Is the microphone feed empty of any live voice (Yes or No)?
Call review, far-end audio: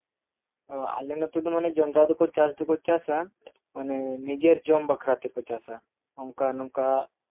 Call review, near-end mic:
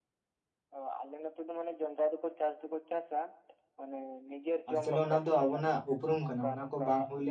No